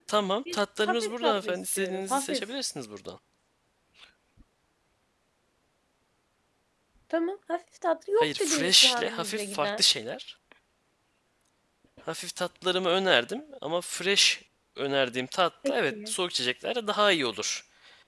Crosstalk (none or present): present